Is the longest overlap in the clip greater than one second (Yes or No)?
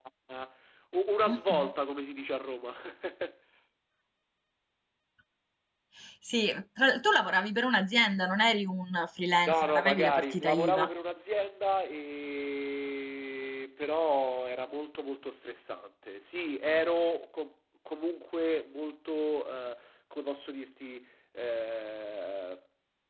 Yes